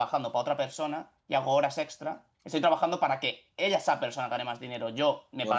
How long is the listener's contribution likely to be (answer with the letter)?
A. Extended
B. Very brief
B